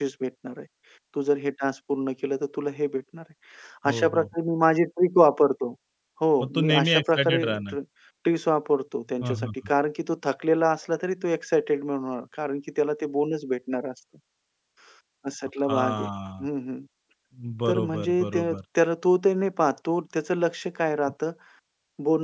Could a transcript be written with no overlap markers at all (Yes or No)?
No